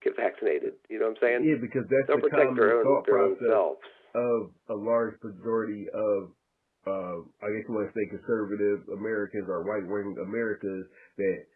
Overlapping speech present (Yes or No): Yes